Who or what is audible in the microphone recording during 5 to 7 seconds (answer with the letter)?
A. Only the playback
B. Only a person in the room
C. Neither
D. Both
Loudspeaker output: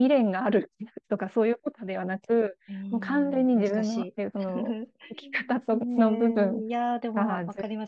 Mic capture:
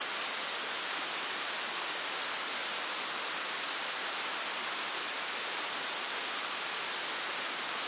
C